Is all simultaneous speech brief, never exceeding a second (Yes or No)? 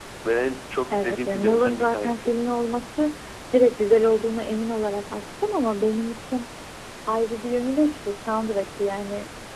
No